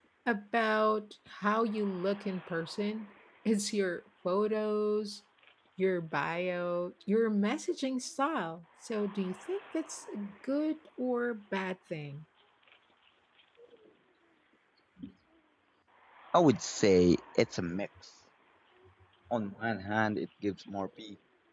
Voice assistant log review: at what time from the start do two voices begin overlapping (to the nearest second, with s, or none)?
none